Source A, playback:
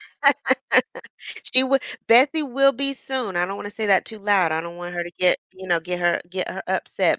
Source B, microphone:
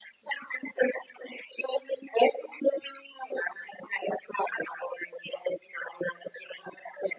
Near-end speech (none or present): none